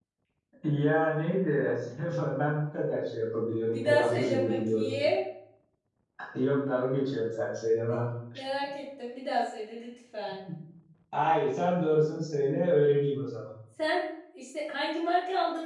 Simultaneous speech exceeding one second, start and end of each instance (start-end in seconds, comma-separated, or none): 3.7-4.9